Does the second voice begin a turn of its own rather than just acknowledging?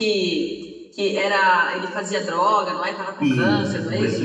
Yes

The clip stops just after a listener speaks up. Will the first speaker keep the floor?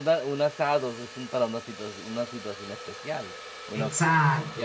Yes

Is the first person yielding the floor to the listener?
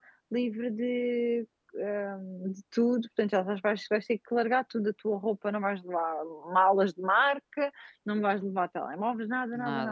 No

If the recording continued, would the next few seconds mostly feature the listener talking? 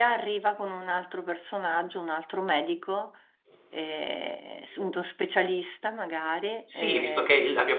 Yes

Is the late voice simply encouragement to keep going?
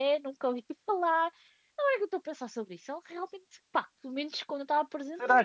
No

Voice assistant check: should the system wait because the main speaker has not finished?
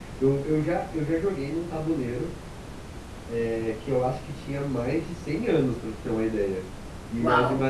Yes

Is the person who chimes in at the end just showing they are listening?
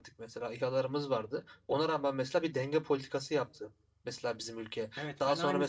No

